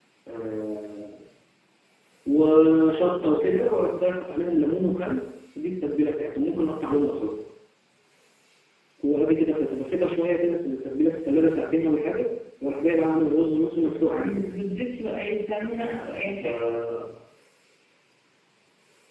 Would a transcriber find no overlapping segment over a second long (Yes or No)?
Yes